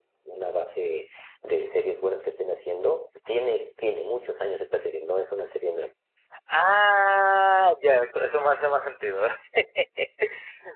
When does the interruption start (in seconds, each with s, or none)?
none